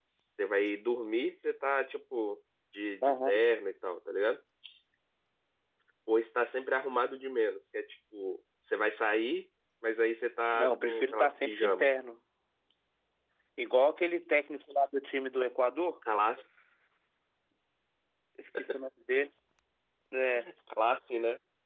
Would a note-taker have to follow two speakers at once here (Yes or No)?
Yes